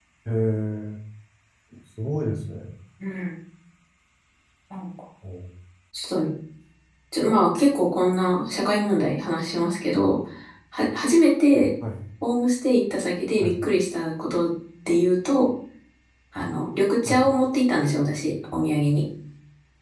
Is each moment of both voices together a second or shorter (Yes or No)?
Yes